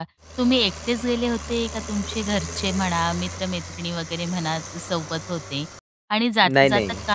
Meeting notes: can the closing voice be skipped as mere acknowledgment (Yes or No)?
Yes